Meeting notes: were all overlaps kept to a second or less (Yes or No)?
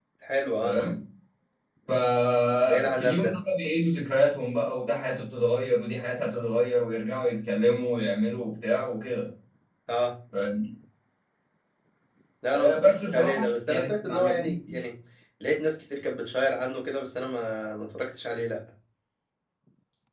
No